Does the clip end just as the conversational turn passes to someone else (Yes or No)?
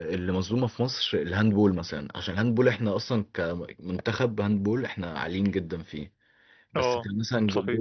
No